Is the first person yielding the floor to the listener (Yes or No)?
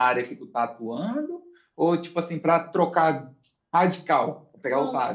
Yes